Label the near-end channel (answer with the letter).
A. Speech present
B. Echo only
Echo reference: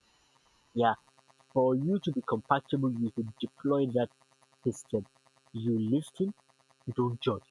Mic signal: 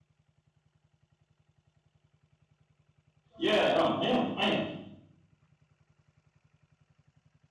A